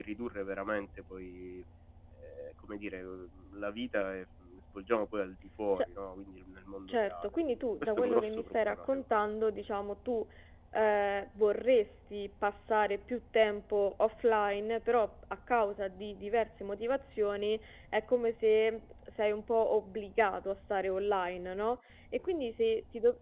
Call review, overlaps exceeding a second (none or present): present